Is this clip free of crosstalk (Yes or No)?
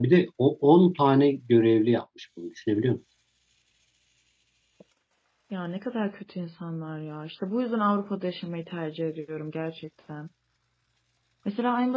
Yes